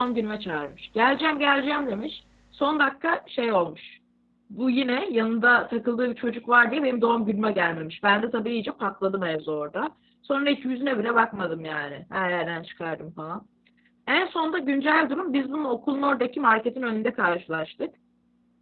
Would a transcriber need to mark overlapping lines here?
No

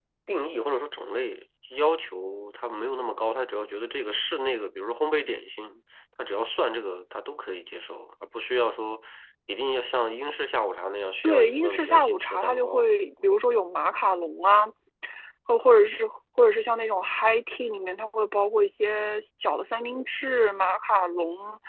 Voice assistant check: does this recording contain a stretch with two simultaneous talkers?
Yes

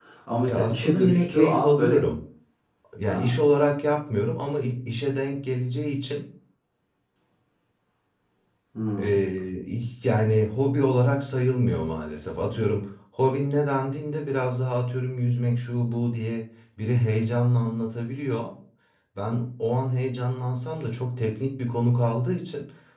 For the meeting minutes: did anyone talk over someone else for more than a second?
Yes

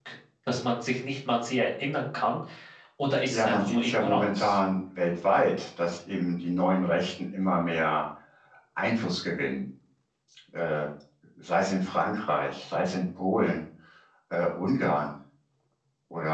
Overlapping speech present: Yes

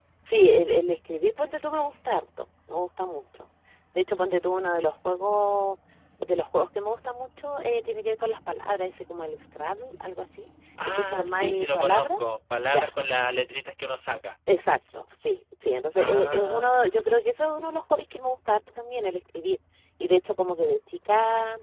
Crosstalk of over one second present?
Yes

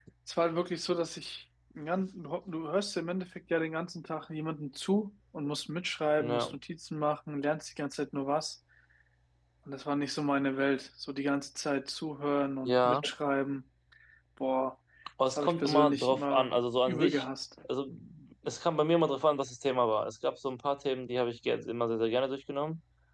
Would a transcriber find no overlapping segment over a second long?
No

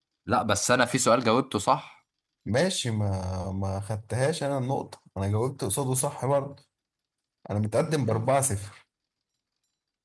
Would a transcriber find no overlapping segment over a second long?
Yes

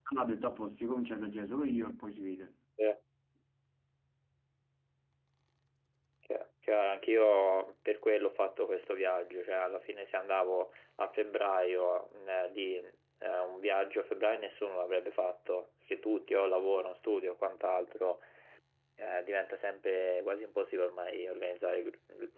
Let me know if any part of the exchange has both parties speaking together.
No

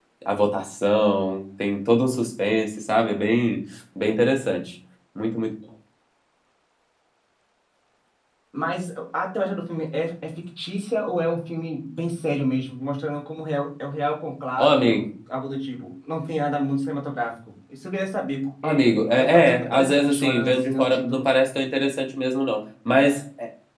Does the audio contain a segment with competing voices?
Yes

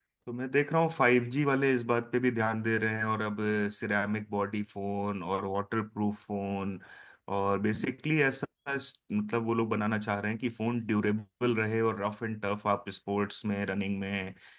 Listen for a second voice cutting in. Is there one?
No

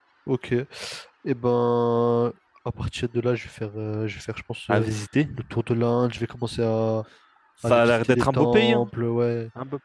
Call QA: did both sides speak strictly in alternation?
No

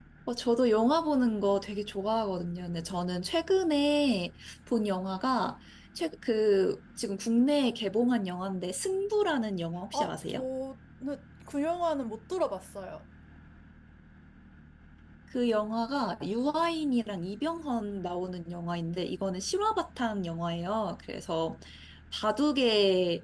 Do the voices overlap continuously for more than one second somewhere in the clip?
No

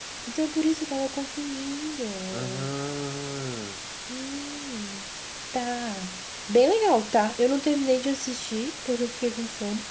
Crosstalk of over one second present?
No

